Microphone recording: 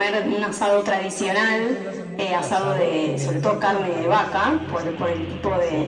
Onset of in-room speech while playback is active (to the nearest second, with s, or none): 1 s